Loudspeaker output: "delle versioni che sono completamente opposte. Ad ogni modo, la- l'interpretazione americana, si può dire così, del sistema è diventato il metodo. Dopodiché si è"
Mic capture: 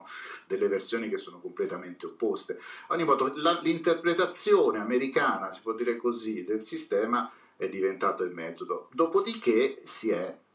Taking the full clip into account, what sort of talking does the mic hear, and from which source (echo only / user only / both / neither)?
echo only